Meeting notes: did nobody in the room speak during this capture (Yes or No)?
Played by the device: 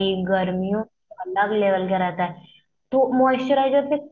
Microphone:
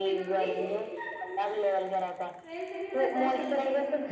No